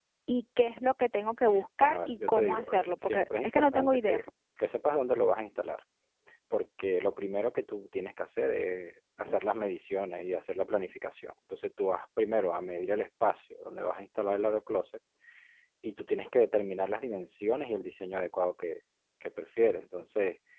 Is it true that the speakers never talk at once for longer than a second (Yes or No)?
No